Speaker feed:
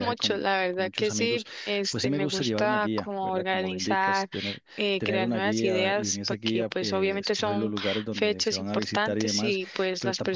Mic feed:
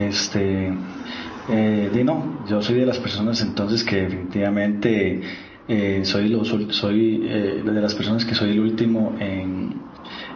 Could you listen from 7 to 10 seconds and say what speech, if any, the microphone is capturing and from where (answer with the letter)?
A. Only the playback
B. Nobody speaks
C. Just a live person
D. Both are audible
C